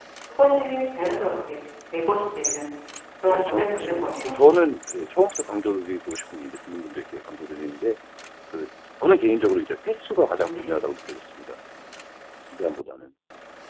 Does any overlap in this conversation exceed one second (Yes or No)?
Yes